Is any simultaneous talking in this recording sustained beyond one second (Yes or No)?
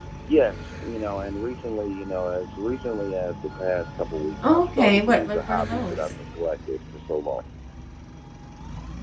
Yes